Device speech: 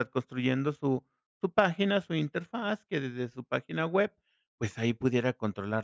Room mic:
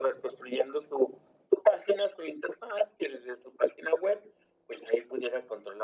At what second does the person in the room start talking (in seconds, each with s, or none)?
none